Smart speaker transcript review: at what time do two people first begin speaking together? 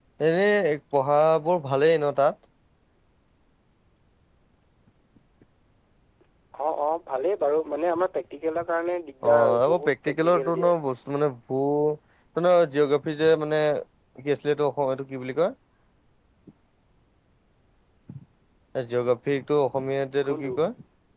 9.3 s

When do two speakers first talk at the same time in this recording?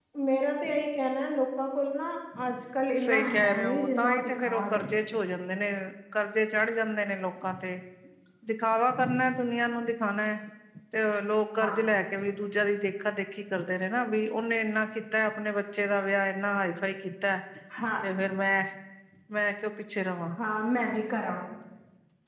3.0 s

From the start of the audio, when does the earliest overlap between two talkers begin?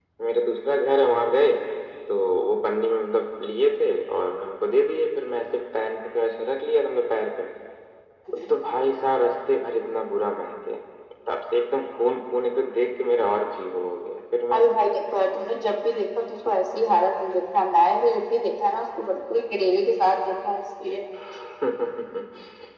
none

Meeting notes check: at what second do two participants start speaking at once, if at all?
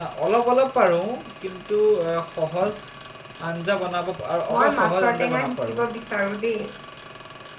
4.5 s

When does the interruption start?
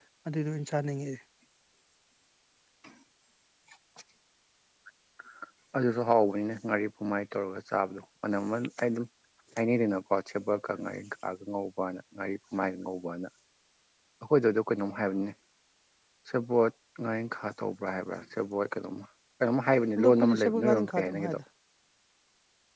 20.0 s

